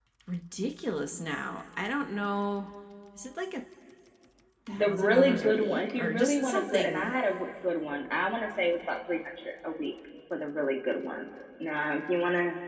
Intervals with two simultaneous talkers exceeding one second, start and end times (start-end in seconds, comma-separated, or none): 4.7-7.1